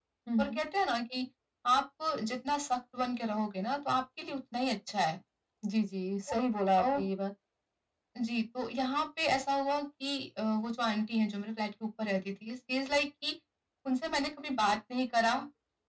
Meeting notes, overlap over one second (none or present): none